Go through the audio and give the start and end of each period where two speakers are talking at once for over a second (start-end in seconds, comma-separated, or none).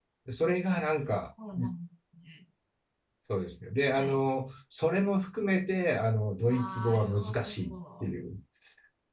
6.5-8.1